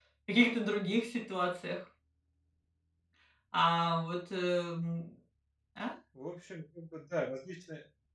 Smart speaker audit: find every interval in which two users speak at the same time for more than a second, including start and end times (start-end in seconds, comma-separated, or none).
none